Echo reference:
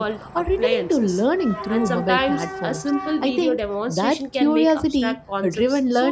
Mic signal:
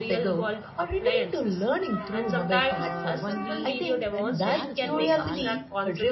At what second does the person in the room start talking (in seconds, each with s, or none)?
2.7 s